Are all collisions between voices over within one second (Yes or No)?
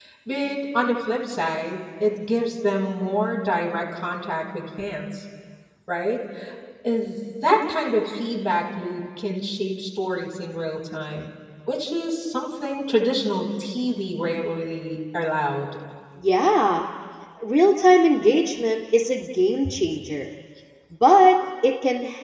Yes